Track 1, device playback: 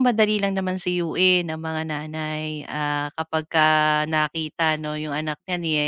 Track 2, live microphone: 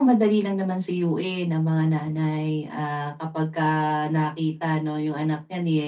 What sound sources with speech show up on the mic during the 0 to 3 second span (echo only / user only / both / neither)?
echo only